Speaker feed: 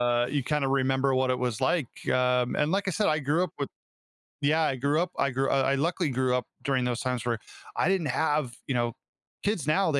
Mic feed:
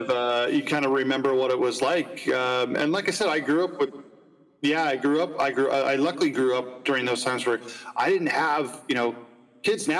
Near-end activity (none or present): none